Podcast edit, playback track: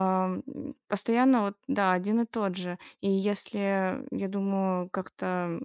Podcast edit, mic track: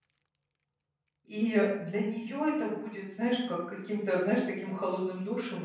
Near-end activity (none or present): present